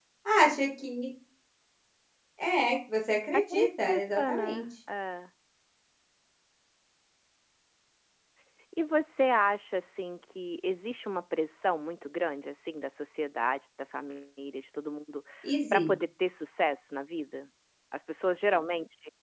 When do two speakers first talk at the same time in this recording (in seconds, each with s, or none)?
3.3 s